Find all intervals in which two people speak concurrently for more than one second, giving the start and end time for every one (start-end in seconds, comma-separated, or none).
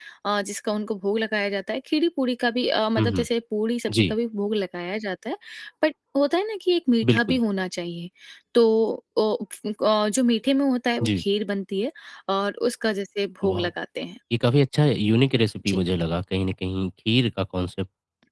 none